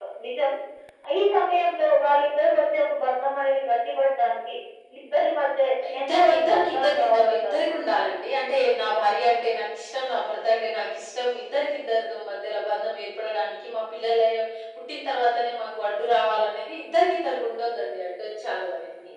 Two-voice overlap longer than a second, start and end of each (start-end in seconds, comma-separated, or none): 6.1-7.6